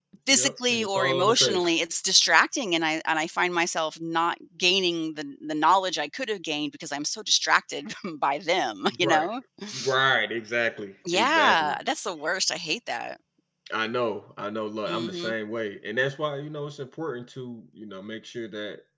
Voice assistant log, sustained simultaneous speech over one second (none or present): present